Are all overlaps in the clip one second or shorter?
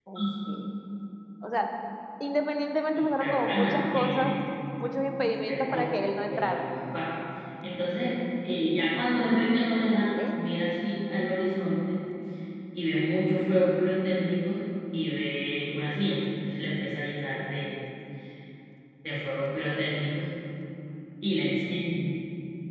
No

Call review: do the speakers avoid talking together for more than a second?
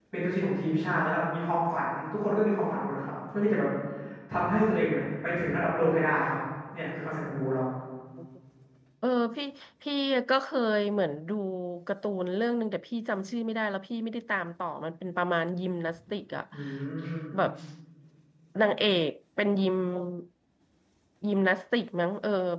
Yes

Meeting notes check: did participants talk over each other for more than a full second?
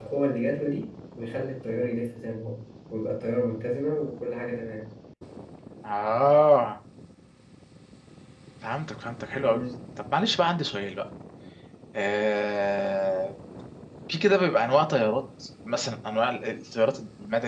No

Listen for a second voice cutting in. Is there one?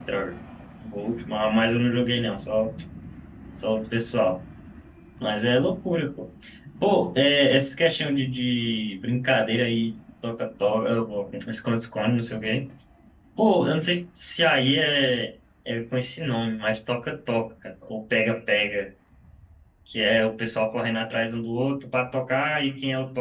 No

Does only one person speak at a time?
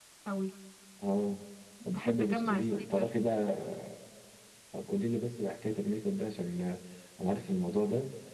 No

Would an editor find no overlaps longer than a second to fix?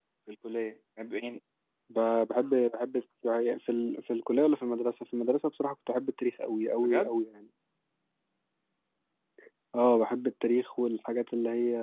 Yes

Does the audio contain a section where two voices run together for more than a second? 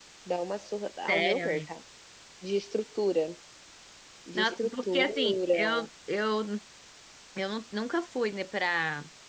Yes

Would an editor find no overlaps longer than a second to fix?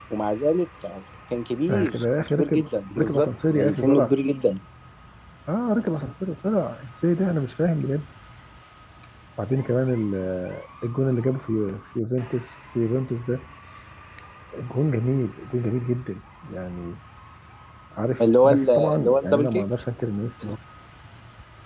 No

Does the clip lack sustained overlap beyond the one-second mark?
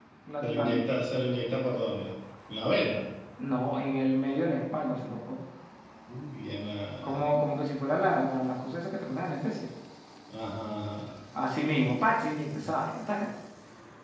Yes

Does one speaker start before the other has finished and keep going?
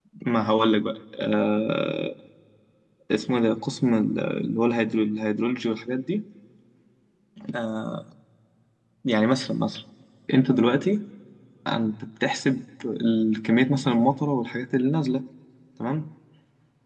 No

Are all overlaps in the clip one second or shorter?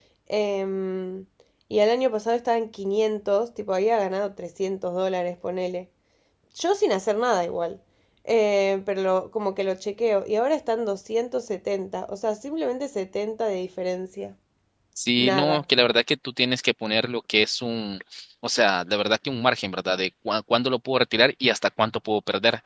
Yes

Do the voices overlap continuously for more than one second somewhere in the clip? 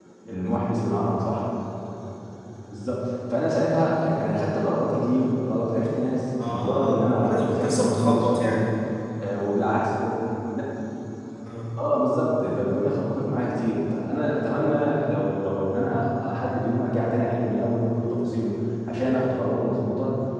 Yes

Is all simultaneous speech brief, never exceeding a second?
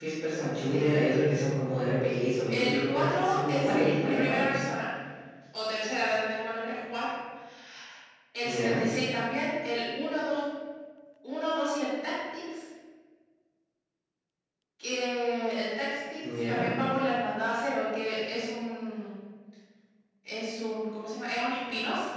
No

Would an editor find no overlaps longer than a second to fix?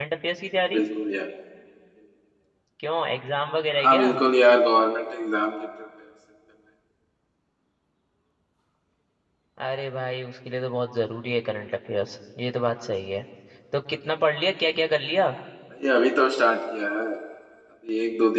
Yes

